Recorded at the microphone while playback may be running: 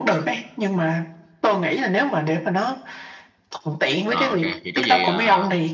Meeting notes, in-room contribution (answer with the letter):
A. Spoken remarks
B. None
A